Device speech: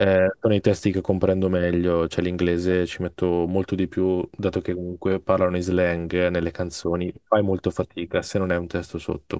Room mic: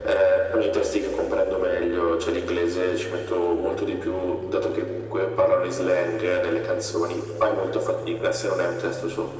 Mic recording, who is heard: echo only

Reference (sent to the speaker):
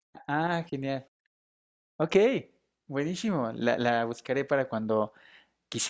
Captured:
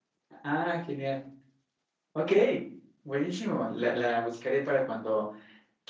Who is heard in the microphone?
echo only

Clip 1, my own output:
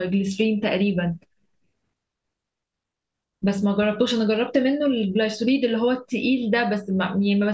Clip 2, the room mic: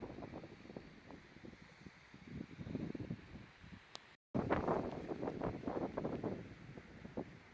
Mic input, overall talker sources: neither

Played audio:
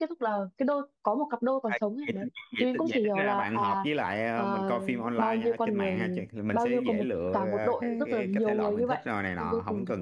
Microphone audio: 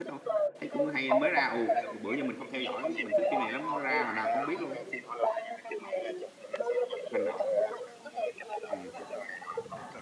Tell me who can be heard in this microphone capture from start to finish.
both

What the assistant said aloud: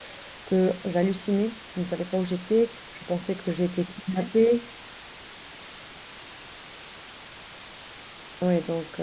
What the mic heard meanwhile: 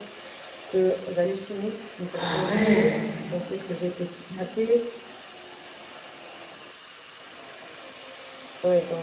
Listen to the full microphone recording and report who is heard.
both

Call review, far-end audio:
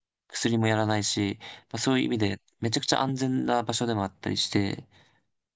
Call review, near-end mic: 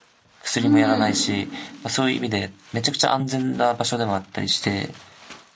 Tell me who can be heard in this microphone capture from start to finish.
both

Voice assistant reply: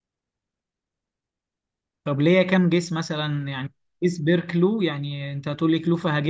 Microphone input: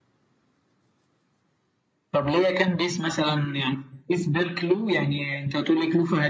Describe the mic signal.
echo only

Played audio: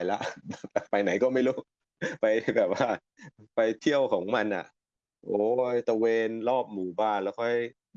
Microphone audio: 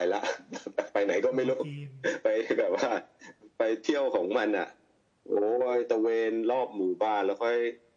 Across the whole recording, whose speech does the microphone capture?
both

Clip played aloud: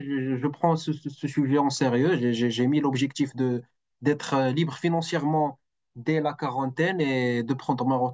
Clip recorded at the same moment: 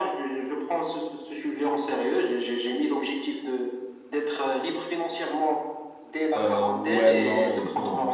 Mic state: both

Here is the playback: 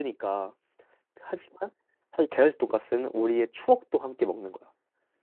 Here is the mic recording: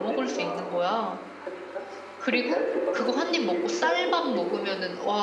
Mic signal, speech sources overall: both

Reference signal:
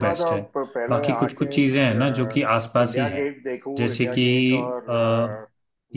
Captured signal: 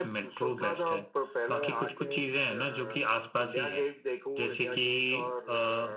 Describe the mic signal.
echo only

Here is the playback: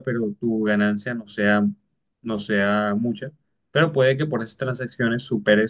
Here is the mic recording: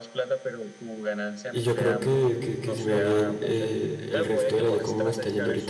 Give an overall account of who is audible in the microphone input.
both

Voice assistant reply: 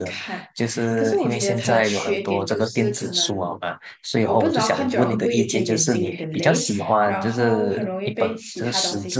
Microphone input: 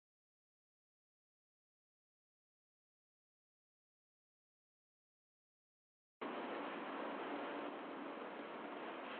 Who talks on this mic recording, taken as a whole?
neither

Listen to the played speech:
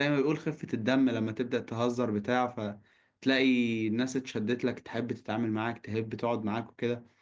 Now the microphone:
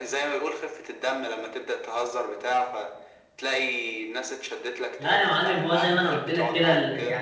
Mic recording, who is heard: both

